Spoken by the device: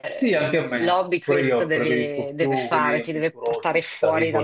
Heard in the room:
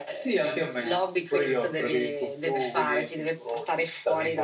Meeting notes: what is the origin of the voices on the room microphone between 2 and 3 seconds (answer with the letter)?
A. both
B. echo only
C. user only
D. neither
B